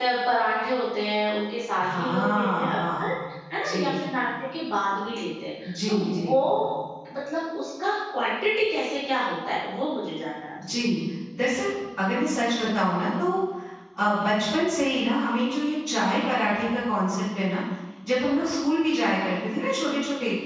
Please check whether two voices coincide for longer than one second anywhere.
Yes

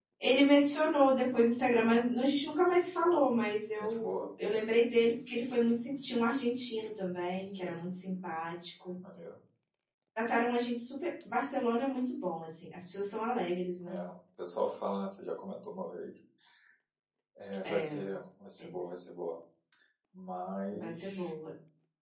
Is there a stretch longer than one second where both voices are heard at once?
No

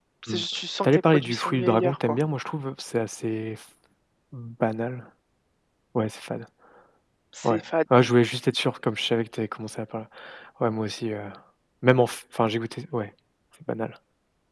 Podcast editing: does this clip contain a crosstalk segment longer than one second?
Yes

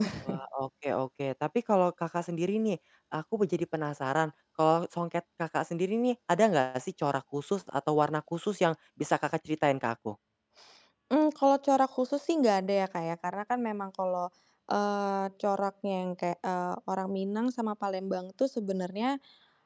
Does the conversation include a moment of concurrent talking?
No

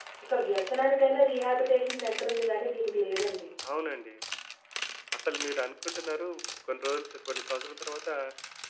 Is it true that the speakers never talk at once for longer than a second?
Yes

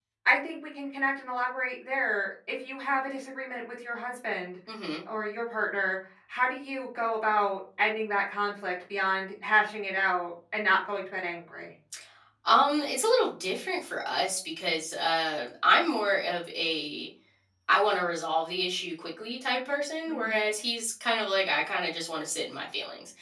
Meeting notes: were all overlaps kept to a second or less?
Yes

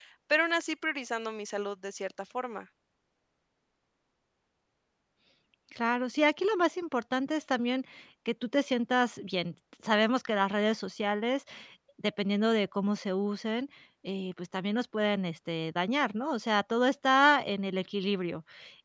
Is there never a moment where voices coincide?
Yes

